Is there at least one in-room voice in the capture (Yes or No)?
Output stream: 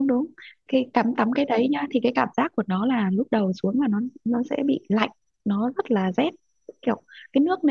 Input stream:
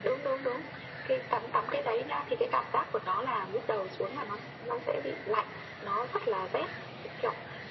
No